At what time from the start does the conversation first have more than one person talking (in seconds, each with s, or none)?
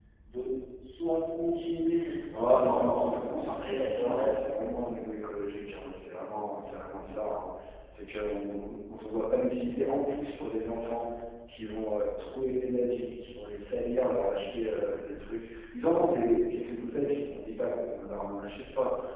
2.3 s